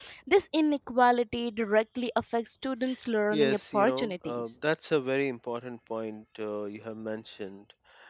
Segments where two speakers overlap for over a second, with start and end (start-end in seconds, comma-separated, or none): 3.3-4.5